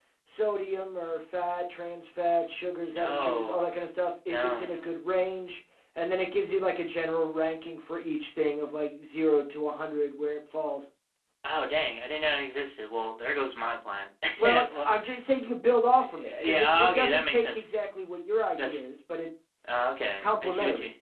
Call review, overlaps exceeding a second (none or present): present